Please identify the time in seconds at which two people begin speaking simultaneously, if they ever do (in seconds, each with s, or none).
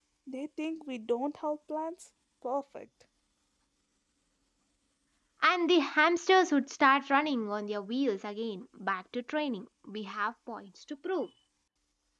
none